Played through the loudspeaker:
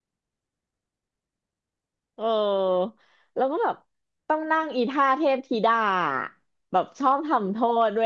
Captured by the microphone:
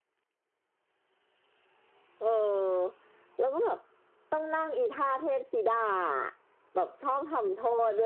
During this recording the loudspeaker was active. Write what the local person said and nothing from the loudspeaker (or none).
none